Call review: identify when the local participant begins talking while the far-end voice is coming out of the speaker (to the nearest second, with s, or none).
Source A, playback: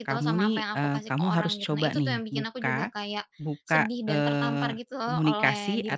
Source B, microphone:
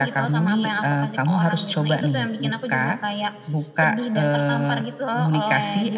none